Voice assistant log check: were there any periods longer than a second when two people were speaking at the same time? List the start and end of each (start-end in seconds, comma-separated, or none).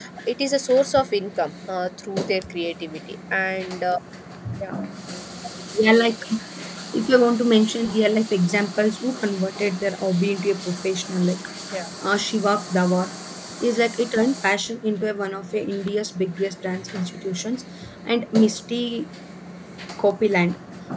none